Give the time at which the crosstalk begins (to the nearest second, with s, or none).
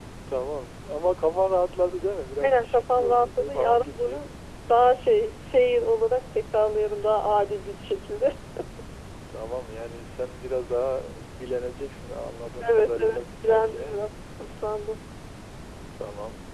2 s